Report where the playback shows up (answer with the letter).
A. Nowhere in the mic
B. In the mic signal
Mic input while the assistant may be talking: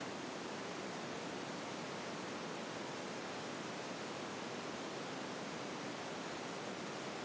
A